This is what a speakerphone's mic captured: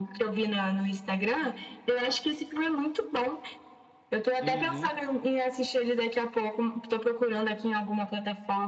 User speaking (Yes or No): Yes